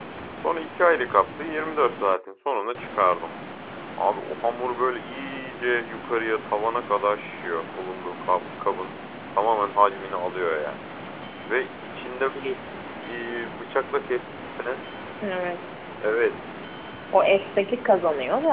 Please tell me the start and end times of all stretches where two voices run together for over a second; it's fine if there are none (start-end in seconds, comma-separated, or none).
none